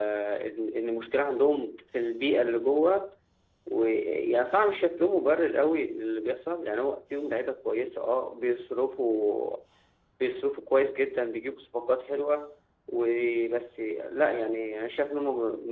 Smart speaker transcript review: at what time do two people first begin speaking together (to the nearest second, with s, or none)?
none